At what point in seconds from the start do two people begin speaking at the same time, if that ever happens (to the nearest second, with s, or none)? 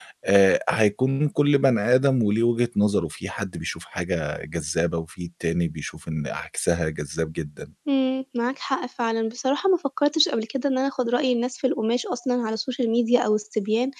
none